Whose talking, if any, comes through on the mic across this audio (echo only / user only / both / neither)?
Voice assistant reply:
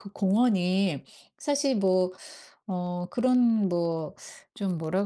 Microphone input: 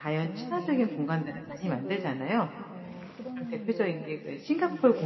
both